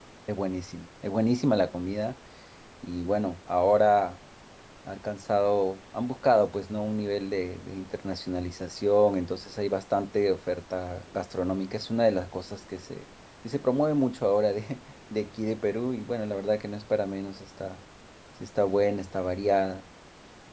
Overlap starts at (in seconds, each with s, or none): none